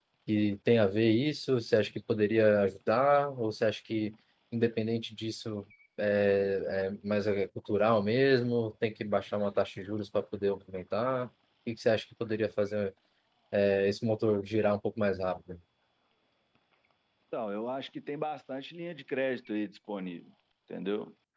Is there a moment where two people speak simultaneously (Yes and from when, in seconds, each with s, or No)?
No